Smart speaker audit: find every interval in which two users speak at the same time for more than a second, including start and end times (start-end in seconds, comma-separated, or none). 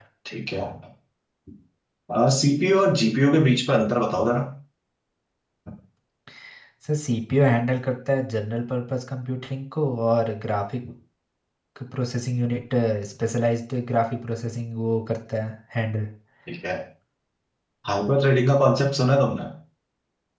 none